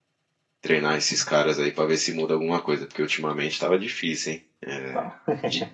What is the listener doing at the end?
listening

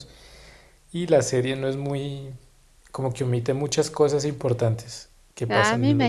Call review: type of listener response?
taking over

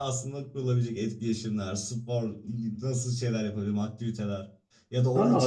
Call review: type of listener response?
taking over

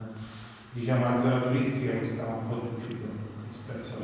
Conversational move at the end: listening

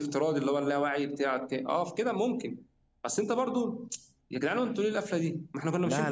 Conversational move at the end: taking over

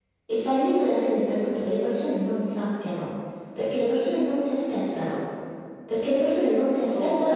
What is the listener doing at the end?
listening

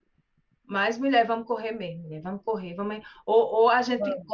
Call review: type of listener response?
listening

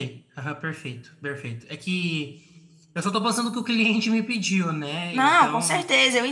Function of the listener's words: taking over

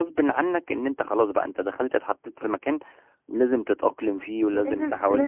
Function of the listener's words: taking over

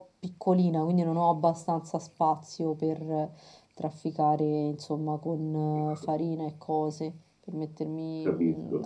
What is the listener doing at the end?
listening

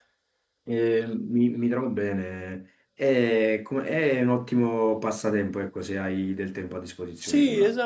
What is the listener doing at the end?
taking over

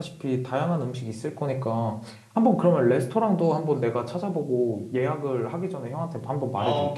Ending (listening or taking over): taking over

